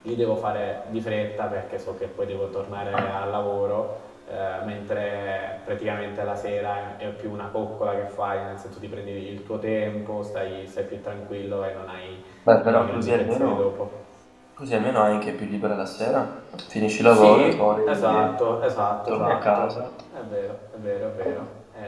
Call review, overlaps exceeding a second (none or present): present